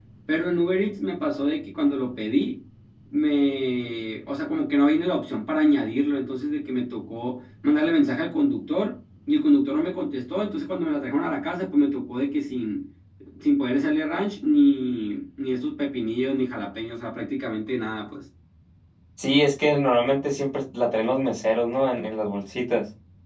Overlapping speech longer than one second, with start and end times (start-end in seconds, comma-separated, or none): none